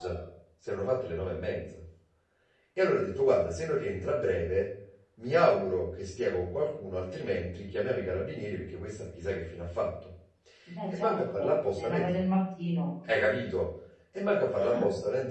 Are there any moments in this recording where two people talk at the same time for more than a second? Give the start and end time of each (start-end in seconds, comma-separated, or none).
10.9-12.2